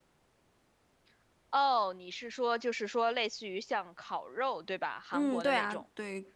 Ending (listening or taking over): taking over